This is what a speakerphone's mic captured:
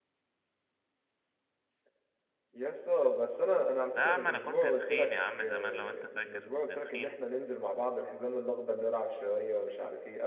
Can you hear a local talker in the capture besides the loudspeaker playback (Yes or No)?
Yes